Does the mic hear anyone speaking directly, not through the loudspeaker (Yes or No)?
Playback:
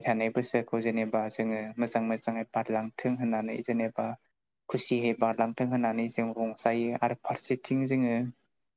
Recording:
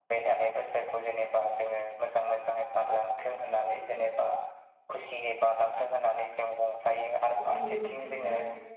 Yes